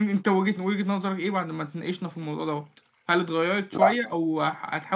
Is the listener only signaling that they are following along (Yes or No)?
Yes